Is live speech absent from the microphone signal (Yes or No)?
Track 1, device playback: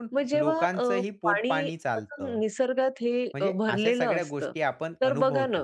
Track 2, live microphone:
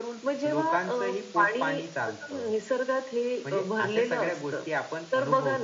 Yes